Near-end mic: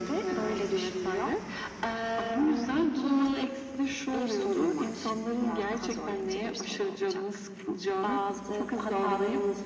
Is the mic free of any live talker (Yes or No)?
Yes